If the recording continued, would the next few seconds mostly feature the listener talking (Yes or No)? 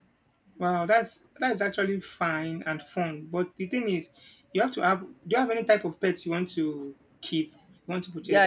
Yes